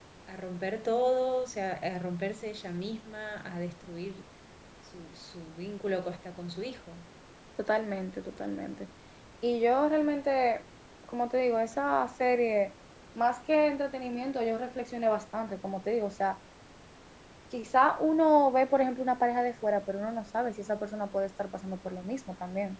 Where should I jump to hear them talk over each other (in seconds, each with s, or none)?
none